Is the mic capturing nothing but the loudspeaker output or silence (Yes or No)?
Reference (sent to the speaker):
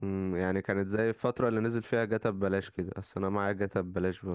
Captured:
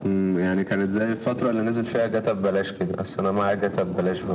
Yes